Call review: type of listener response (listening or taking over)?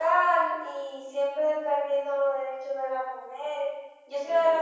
listening